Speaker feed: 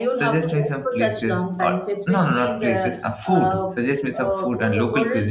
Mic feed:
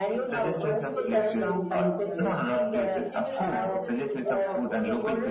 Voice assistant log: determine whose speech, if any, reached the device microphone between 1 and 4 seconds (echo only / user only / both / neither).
both